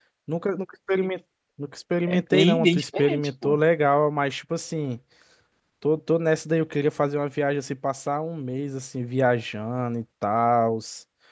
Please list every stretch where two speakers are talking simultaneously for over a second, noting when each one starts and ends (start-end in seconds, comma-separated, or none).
2.1-3.6